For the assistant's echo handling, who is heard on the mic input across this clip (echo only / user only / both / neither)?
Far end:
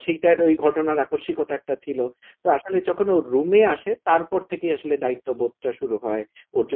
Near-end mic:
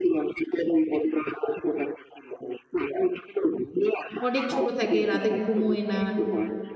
both